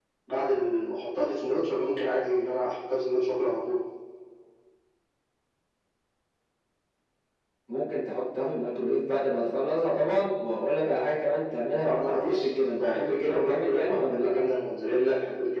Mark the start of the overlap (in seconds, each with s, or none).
11.8 s